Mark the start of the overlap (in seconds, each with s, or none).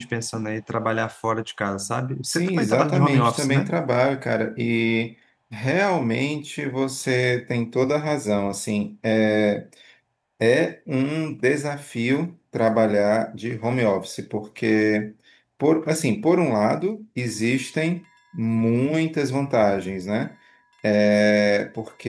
2.2 s